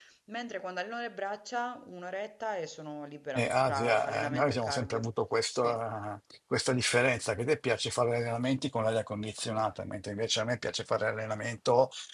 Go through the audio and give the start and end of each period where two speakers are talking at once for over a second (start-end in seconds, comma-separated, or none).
3.4-5.1